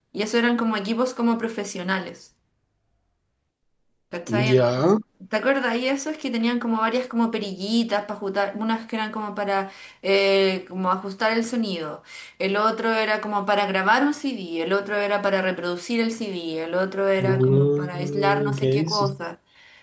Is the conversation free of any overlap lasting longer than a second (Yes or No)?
No